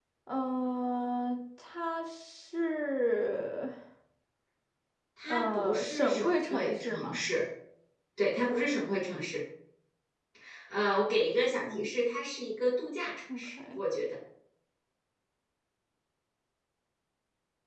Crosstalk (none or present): present